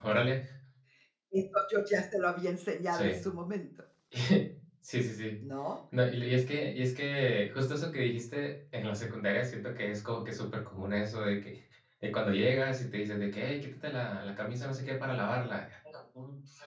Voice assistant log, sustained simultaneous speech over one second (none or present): none